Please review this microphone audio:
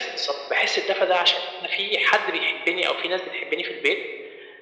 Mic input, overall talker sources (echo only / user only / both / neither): echo only